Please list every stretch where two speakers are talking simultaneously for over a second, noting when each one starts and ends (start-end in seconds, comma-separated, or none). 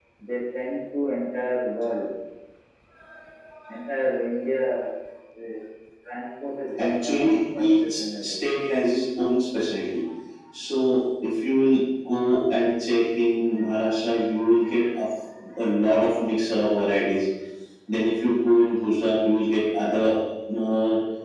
6.8-8.3